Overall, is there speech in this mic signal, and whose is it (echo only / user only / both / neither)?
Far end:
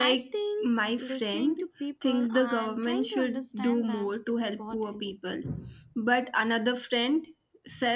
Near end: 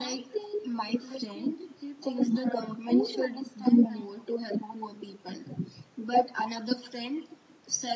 echo only